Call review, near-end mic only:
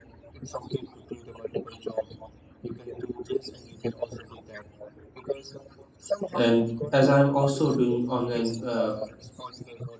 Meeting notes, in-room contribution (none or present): present